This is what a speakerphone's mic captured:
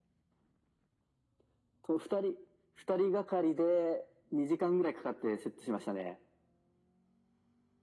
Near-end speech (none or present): none